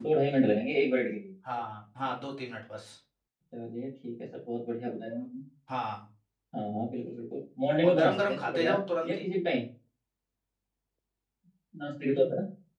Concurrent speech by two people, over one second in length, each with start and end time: 7.8-9.2

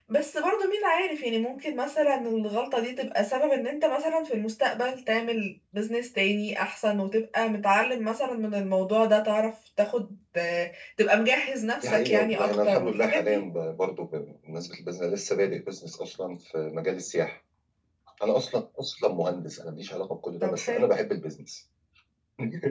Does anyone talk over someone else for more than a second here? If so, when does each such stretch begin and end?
11.8-13.4

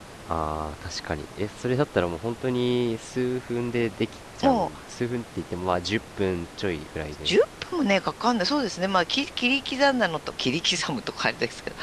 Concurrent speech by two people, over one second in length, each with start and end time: none

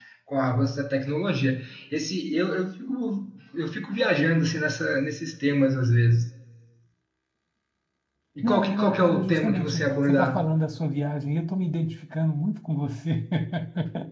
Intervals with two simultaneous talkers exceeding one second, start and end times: 8.4-10.3

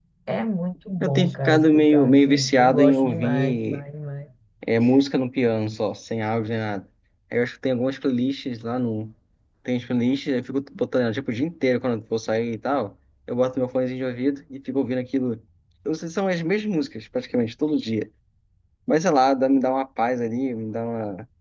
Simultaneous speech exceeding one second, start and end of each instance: 1.0-3.8

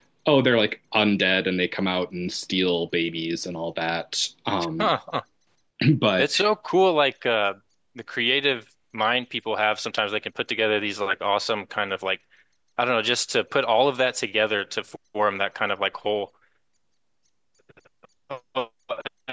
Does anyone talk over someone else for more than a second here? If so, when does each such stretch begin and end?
none

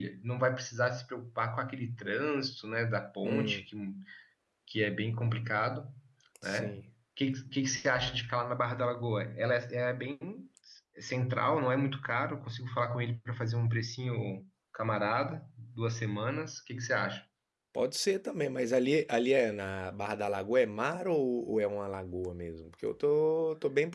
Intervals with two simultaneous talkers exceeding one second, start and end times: none

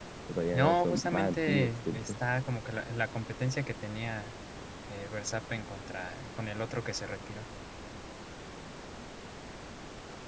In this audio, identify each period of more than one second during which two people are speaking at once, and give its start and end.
0.5-2.1

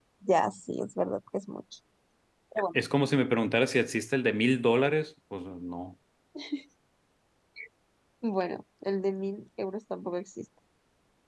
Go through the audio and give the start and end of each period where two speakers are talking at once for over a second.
none

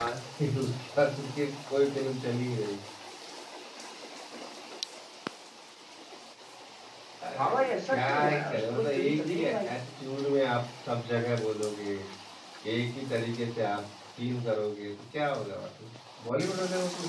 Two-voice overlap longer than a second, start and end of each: 7.3-9.7

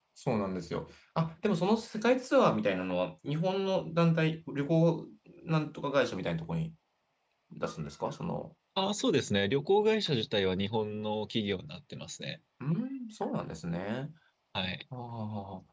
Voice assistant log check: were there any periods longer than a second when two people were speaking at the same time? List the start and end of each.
none

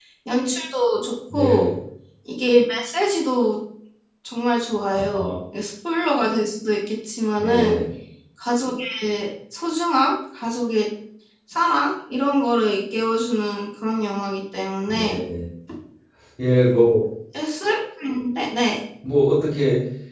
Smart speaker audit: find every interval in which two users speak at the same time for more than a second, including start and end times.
none

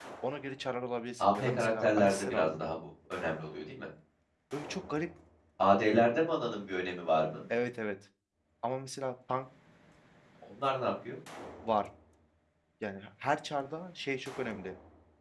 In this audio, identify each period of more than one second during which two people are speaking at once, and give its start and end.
1.2-2.6

